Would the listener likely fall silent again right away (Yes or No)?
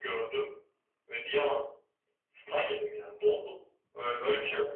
Yes